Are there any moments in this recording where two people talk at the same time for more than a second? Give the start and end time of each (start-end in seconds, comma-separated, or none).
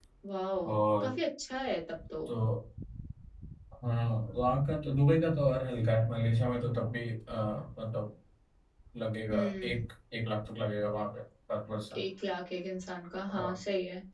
none